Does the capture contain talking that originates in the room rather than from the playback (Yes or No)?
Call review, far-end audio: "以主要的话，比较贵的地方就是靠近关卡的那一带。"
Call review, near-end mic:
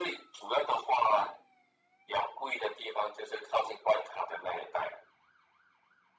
No